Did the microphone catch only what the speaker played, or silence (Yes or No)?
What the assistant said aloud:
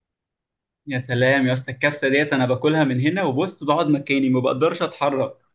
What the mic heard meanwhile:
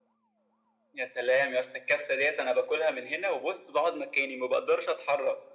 Yes